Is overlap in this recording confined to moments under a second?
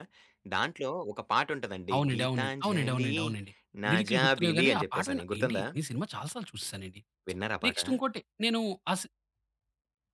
No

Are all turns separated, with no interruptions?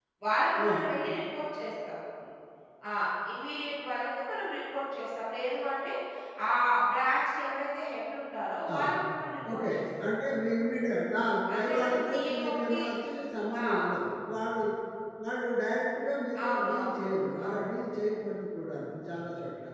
No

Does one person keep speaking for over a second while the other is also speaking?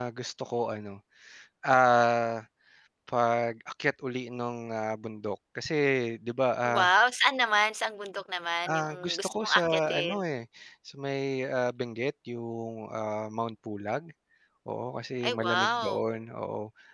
Yes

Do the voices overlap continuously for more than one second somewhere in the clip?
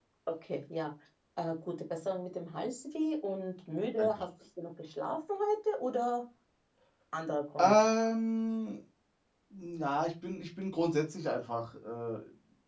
No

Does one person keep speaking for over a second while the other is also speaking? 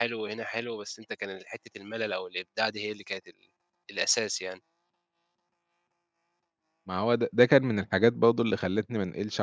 No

